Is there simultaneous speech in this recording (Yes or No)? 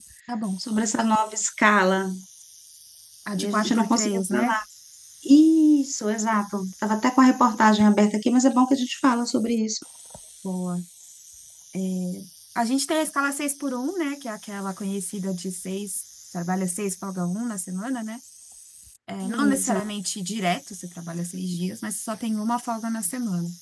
Yes